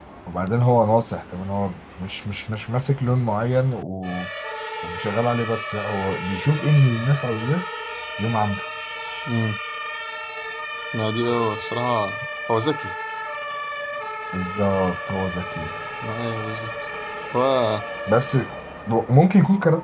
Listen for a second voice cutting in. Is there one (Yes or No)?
No